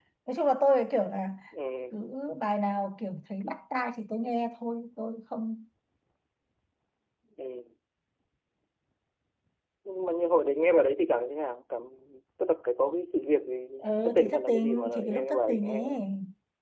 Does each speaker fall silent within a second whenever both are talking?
No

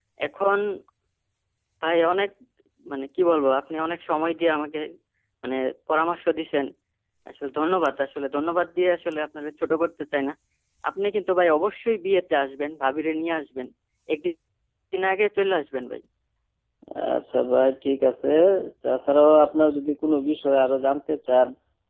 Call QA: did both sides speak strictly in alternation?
Yes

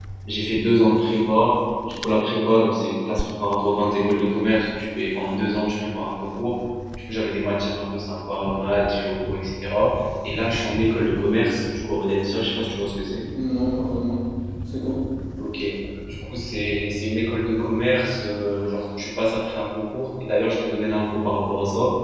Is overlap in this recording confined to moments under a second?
Yes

